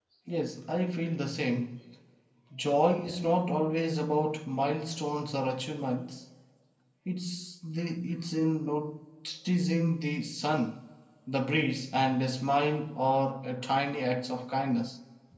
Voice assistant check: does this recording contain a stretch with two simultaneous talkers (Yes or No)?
No